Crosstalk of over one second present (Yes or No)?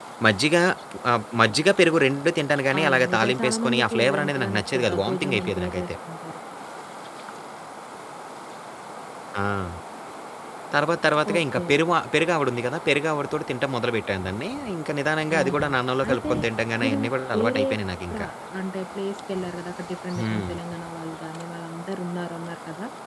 Yes